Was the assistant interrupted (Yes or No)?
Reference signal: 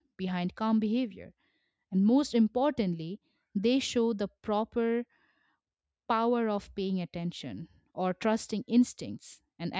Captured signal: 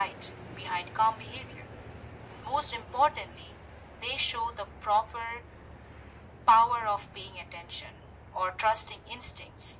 No